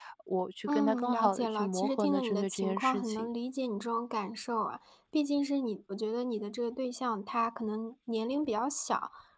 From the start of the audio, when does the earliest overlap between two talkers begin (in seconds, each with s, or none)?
0.7 s